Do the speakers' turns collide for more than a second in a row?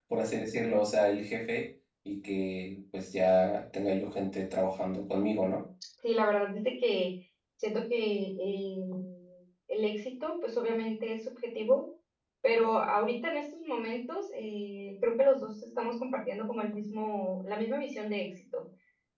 No

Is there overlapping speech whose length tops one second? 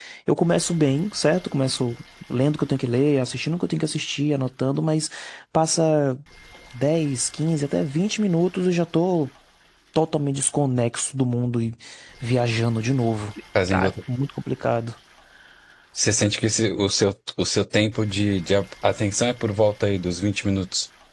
No

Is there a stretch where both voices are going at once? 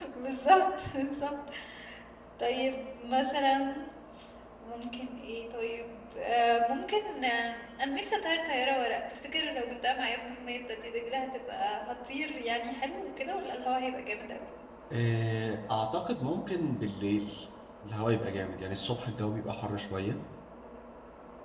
No

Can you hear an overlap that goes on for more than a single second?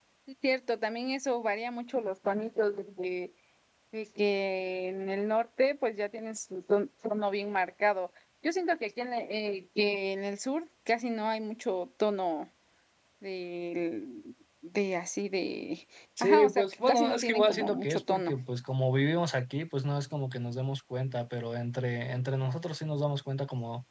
Yes, from 16.2 s

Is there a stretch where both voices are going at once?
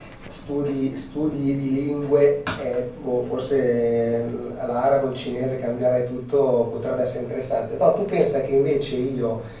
No

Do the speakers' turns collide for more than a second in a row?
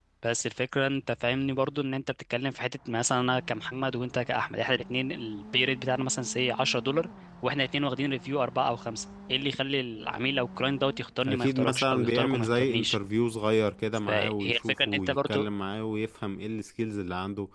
Yes, from 11.3 s

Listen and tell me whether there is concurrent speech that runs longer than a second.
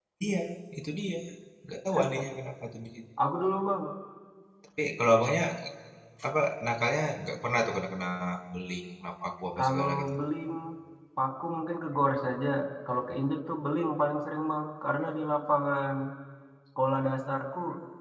No

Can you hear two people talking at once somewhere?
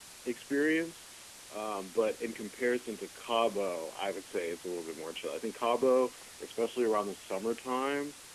No

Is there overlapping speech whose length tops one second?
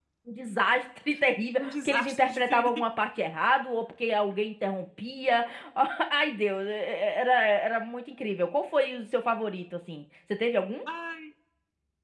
Yes, from 1.6 s

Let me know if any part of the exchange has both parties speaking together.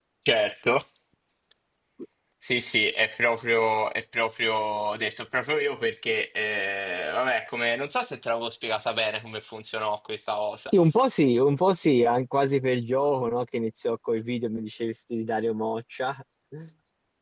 No

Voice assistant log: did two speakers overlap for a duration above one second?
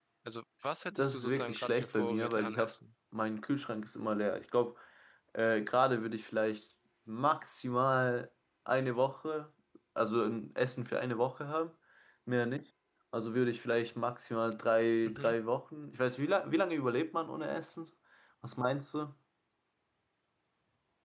Yes, from 0.9 s

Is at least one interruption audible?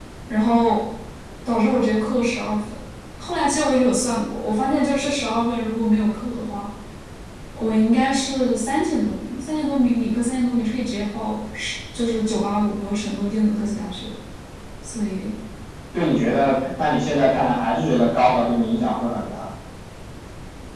No

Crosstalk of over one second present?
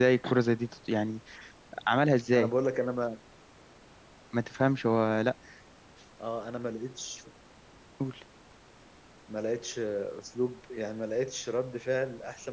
No

